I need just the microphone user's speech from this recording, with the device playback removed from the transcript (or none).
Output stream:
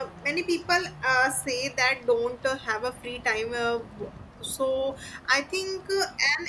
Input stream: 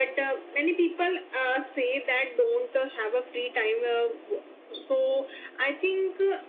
none